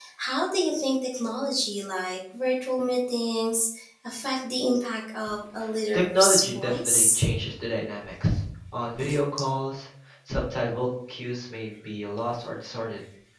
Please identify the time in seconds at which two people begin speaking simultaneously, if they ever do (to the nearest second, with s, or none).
6 s